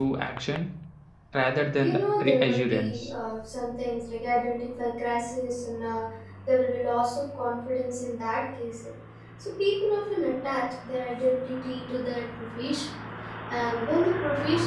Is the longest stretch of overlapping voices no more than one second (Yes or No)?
No